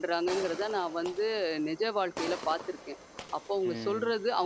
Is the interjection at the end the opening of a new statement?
No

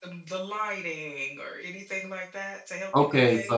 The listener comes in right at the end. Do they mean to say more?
Yes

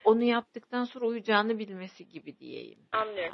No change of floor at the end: No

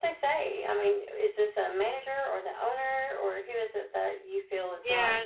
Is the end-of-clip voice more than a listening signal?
Yes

